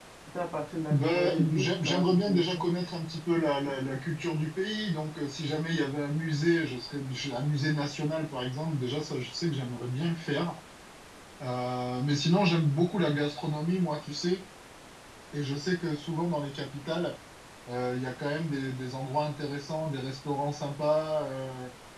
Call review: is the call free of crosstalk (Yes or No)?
No